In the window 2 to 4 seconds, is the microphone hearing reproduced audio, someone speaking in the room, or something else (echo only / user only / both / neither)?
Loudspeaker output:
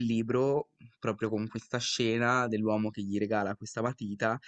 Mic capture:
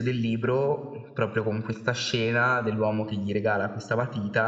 echo only